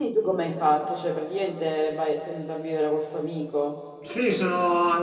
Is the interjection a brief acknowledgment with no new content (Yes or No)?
No